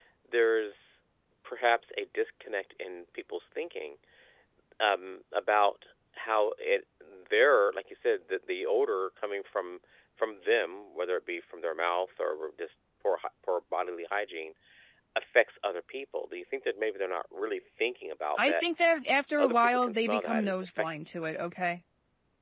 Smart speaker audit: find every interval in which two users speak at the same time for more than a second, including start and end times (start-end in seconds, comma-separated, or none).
19.4-20.9